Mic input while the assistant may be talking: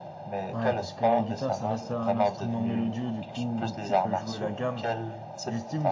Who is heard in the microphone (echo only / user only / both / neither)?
both